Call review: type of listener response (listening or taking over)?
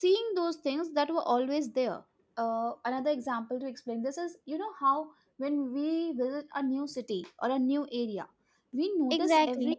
listening